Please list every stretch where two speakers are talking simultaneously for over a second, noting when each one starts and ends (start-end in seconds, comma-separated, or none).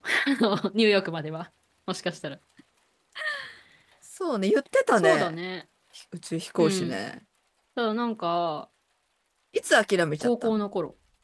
none